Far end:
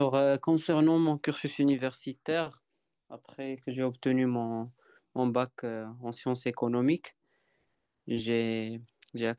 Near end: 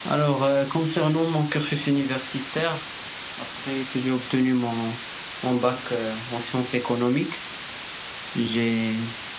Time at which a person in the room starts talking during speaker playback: none

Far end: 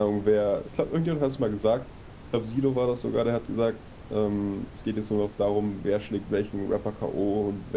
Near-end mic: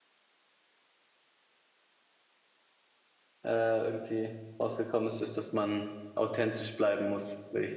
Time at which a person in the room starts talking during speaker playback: 3.4 s

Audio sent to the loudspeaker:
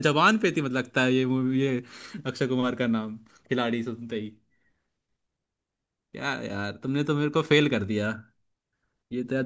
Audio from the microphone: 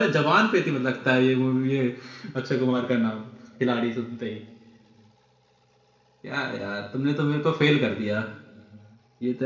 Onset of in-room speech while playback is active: none

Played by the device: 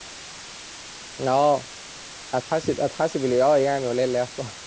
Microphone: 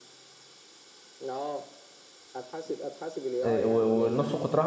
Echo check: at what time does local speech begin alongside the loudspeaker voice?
3.4 s

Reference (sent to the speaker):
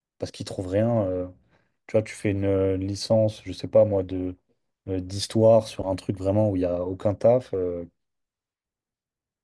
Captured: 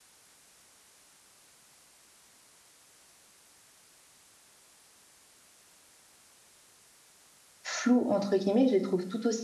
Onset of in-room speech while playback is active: 7.6 s

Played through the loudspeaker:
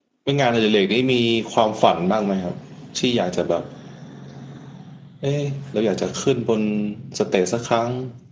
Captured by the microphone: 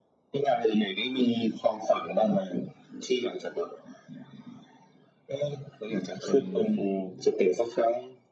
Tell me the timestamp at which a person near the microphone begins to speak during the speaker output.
6.2 s

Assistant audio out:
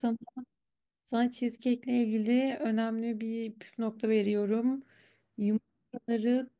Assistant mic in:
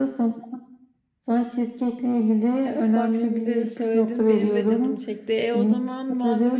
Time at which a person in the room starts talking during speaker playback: 2.7 s

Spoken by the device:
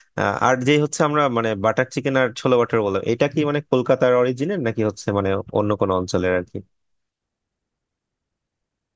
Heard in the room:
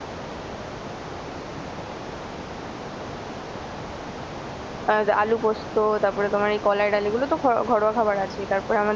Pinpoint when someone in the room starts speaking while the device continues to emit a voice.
4.9 s

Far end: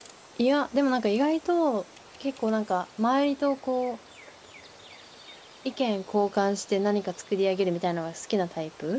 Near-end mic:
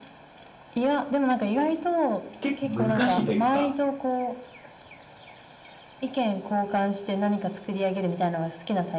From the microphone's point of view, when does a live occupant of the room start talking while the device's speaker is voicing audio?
2.4 s

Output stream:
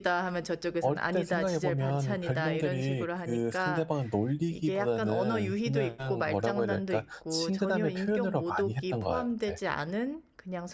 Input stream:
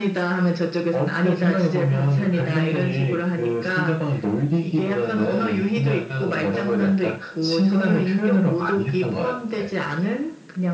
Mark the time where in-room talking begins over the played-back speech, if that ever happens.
none

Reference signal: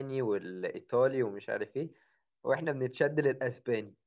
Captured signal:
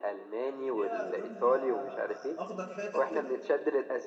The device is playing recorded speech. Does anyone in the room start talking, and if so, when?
0.5 s

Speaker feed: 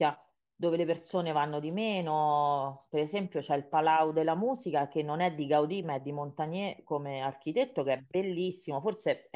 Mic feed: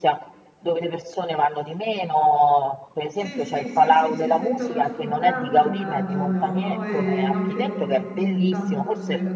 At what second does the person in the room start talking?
3.1 s

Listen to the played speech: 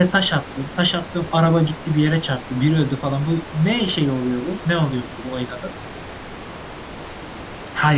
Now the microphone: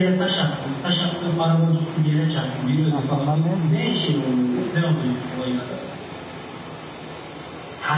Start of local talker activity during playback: 2.9 s

